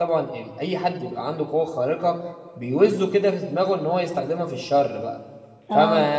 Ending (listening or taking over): listening